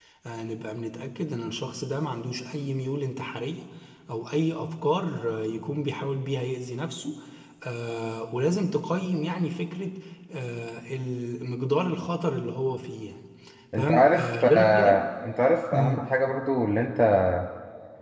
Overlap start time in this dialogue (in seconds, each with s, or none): 13.8 s